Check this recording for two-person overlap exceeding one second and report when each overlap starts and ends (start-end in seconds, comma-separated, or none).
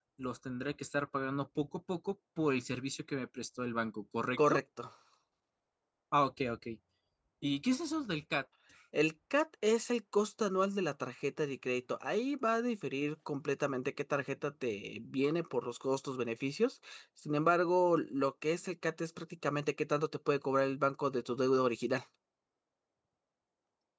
none